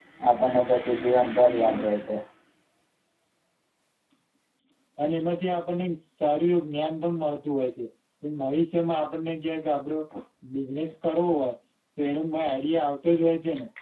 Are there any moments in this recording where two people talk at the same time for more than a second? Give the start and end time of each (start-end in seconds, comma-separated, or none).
none